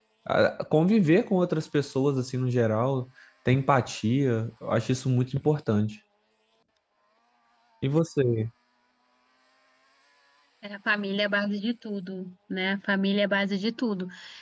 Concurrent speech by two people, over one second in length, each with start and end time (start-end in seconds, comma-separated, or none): none